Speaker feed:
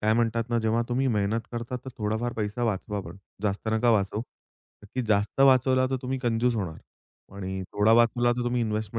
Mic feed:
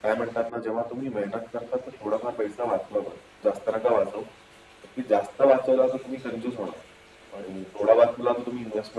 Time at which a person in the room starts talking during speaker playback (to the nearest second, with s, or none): none